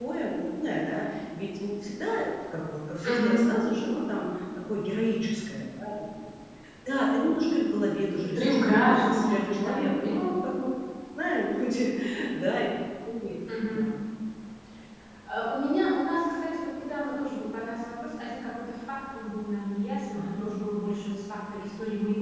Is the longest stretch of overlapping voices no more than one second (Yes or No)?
No